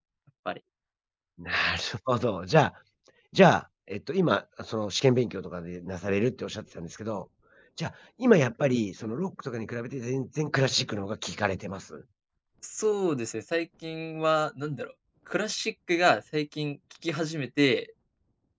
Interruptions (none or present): none